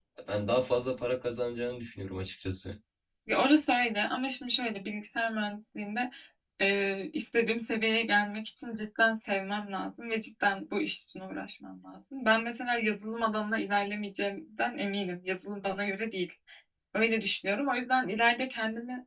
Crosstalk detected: No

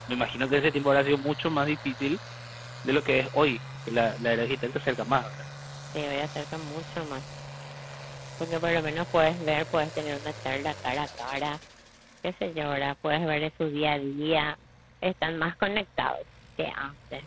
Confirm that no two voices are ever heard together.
Yes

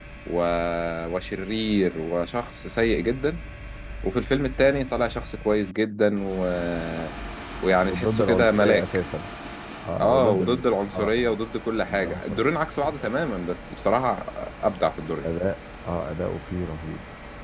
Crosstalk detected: Yes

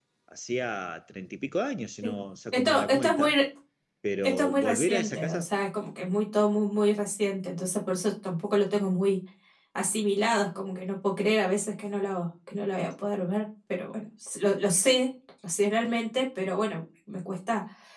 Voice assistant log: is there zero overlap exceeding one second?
No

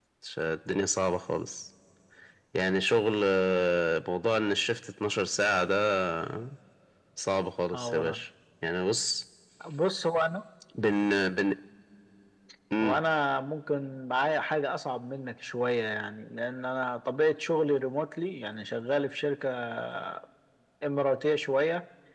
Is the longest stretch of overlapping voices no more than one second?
Yes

